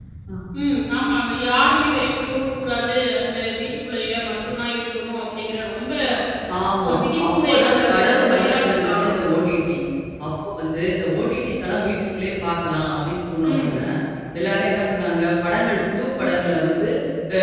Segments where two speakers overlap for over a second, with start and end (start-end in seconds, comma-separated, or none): 6.9-9.3